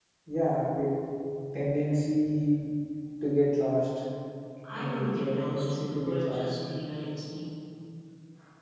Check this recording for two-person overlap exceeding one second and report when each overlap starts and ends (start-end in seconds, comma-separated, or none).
4.7-6.5